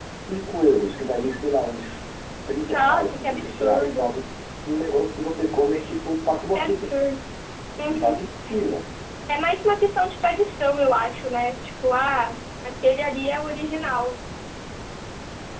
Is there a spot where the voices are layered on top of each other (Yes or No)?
Yes